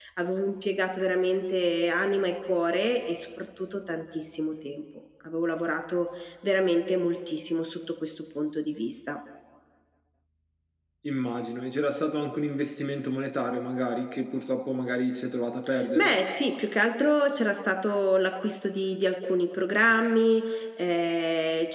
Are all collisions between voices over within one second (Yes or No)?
Yes